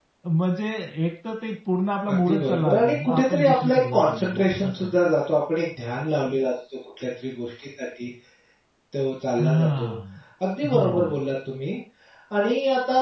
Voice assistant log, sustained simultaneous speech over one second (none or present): present